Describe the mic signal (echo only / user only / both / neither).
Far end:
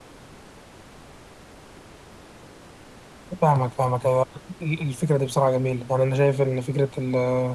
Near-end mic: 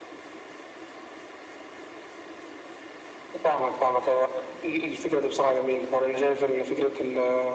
echo only